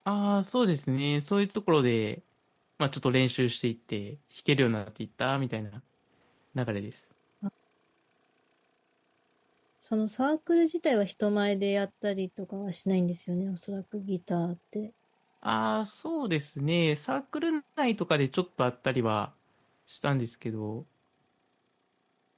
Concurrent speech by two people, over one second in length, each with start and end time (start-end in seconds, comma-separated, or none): none